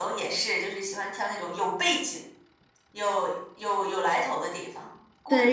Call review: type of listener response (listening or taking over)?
taking over